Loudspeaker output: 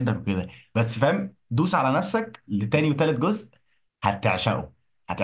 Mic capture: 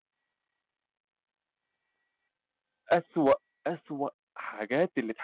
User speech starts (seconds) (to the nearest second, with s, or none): 3 s